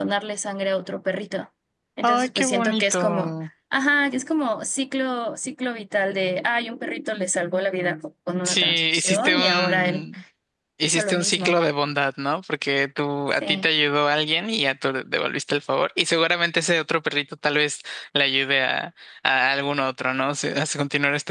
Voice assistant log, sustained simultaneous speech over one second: present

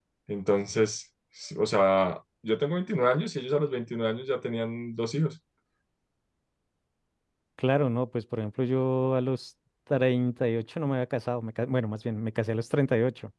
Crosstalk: none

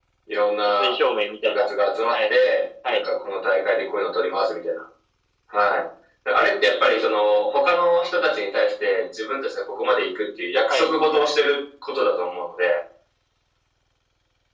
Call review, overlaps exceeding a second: none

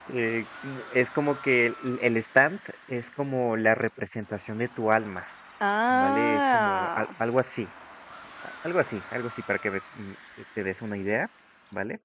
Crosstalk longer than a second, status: present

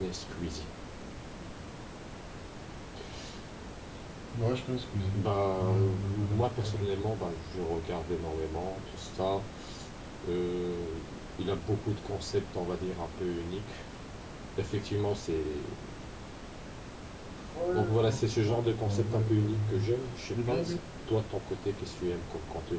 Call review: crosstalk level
present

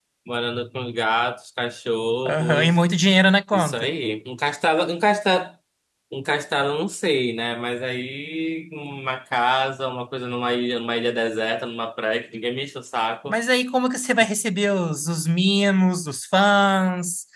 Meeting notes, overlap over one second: none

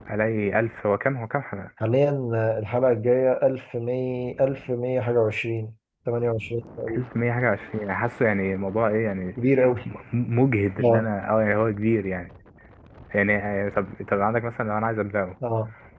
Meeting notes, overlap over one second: none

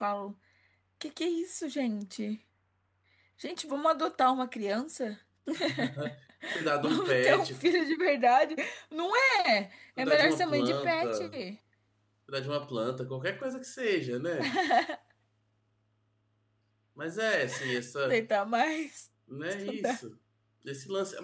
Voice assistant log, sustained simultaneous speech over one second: present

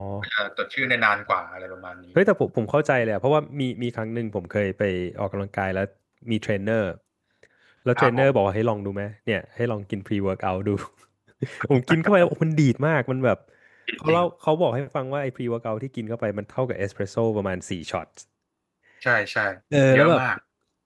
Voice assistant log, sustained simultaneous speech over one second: none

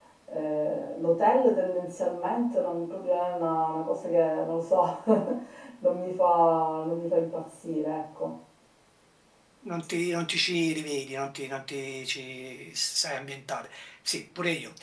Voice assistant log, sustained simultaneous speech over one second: none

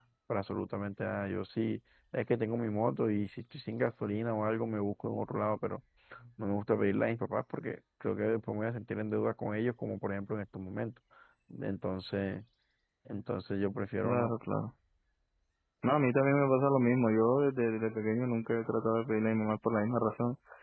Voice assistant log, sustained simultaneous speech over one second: none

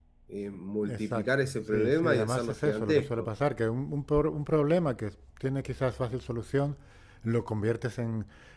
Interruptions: present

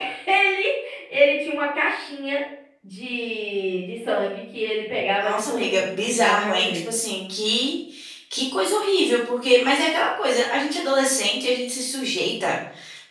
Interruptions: present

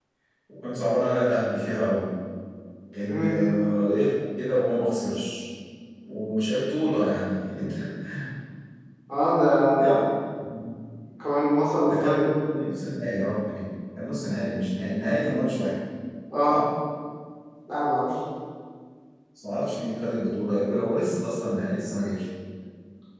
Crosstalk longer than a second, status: none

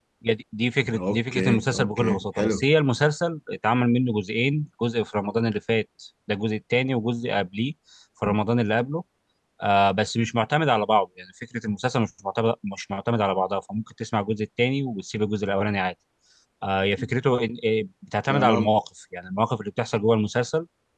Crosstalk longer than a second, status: present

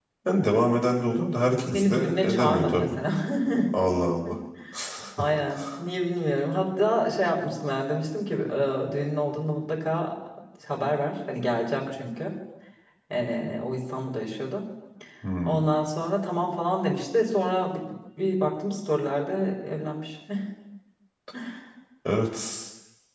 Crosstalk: present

